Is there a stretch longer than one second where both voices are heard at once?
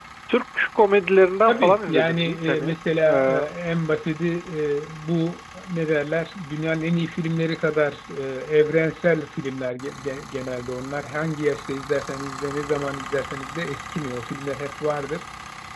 Yes, from 1.5 s

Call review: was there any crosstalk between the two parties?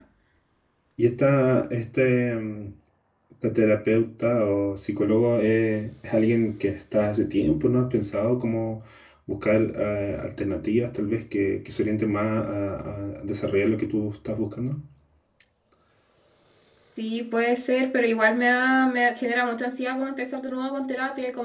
No

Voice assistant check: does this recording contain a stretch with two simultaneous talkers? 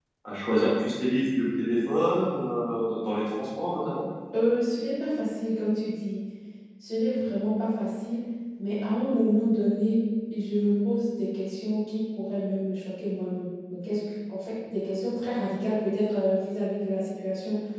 No

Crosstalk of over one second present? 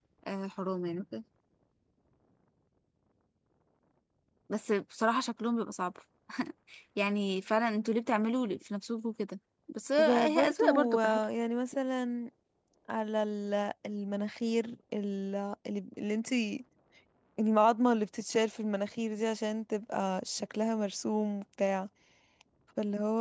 Yes, from 10.0 s

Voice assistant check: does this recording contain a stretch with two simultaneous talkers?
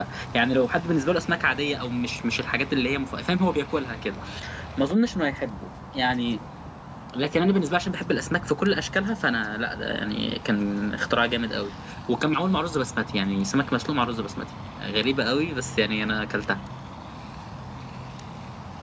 No

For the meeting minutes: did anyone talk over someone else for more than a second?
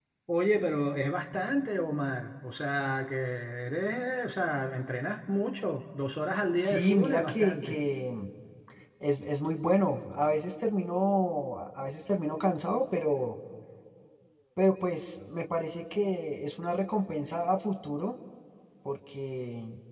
Yes, from 6.6 s

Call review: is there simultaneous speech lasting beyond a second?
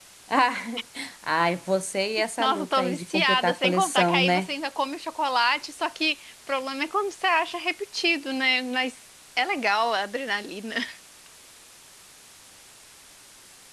Yes, from 2.4 s

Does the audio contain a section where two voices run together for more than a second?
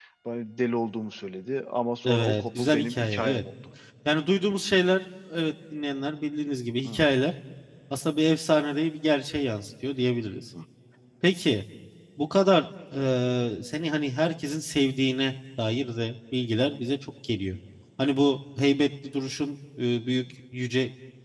Yes, from 2.0 s

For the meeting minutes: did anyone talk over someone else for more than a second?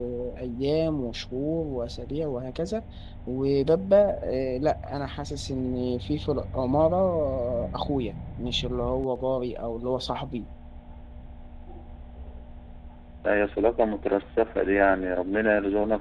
No

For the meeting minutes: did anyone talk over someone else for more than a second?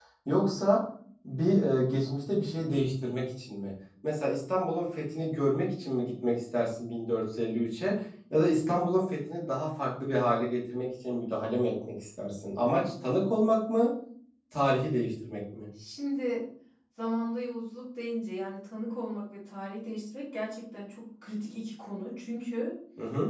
No

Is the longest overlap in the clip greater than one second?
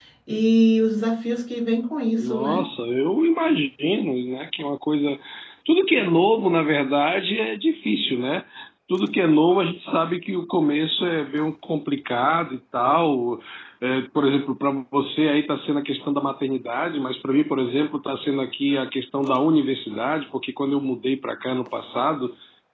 No

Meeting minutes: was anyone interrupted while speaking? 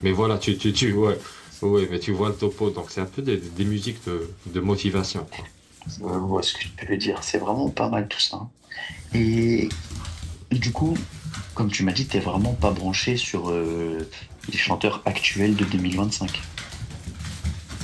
No

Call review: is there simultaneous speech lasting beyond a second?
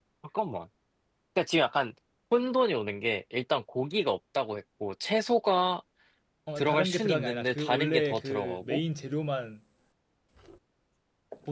Yes, from 6.6 s

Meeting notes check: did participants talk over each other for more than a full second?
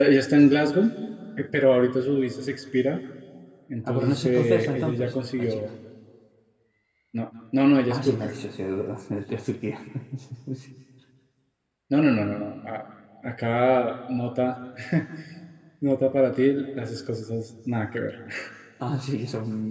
Yes, from 3.9 s

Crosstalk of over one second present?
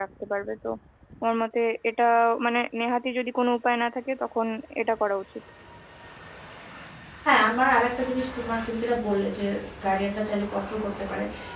No

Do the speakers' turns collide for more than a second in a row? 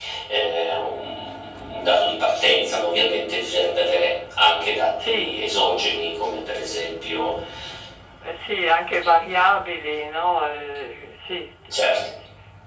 No

